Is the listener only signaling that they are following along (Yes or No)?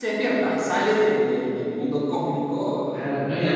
No